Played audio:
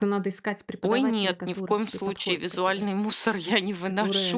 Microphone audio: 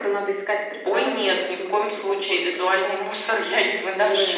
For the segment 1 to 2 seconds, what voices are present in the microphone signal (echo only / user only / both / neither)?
echo only